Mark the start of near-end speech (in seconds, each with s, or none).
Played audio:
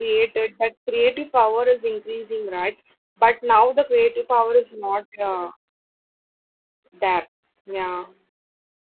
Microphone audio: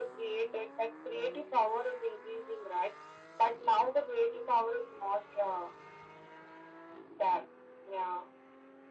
none